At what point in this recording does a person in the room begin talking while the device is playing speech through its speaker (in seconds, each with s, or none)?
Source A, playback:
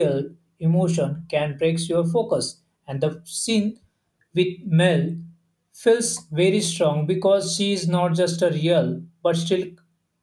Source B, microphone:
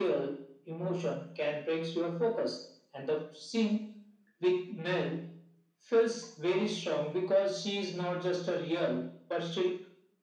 none